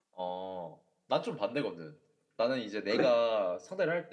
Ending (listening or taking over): listening